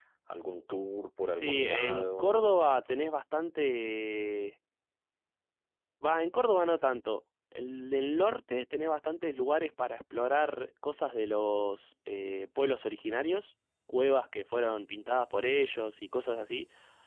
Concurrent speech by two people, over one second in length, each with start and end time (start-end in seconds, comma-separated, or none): 1.3-2.5